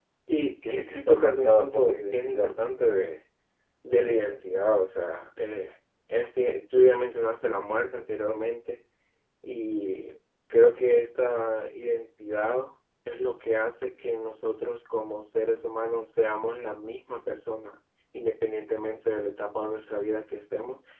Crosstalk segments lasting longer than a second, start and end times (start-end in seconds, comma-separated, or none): 0.7-2.5